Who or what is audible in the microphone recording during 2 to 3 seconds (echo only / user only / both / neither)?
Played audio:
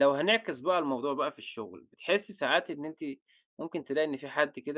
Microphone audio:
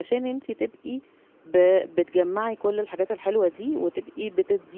user only